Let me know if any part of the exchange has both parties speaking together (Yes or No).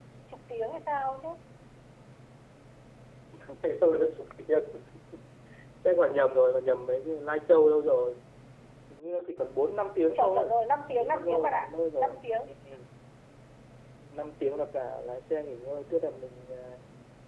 Yes